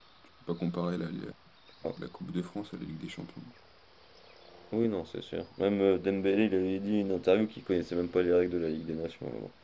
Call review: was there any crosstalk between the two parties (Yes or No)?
No